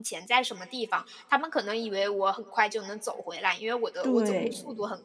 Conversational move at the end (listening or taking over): listening